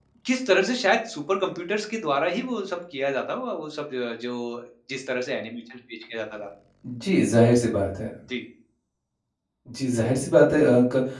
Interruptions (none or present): none